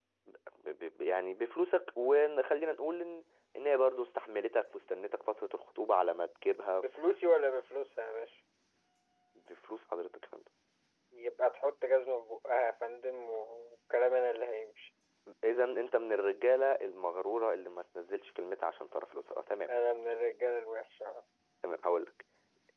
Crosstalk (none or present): none